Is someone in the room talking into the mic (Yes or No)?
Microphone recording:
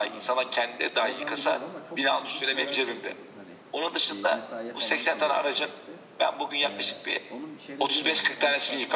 Yes